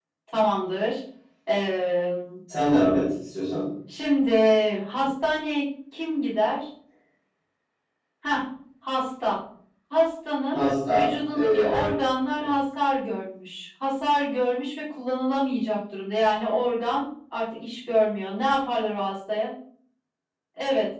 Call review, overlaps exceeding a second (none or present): present